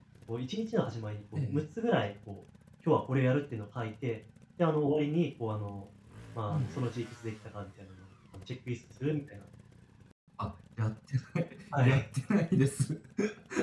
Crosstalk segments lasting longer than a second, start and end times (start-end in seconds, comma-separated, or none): none